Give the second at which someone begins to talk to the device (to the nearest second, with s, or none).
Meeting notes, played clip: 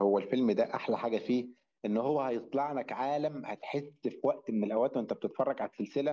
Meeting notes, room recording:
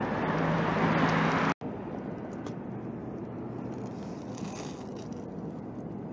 none